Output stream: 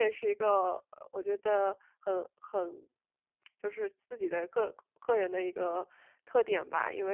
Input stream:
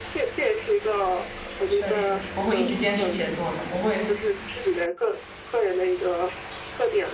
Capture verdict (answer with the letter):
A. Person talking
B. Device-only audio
A